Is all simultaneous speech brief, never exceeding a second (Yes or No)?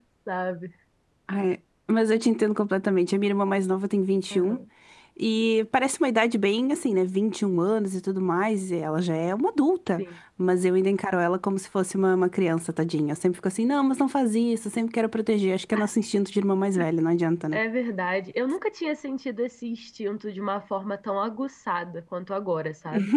Yes